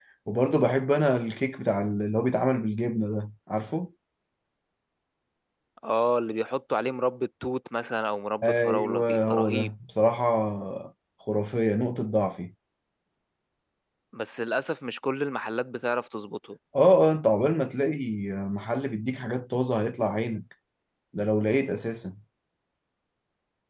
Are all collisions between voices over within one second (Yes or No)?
No